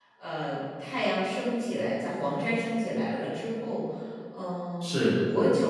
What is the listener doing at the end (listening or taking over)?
listening